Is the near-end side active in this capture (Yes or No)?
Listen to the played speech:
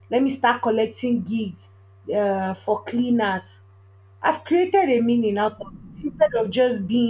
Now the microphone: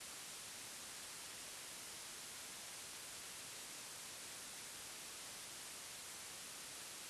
No